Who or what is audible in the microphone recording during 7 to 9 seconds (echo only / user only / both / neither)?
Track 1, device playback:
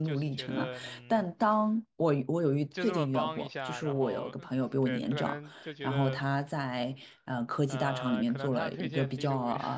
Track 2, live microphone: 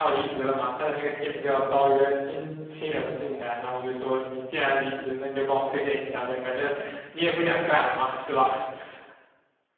user only